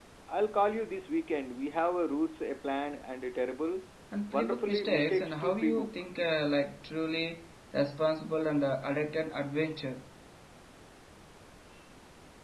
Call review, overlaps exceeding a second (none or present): present